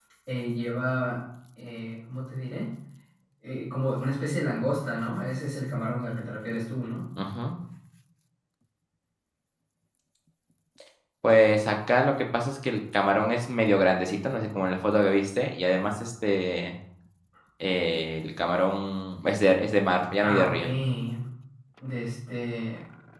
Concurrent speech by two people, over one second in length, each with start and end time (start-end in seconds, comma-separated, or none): none